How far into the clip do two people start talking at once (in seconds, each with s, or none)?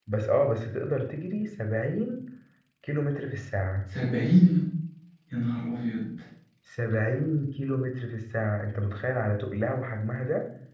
none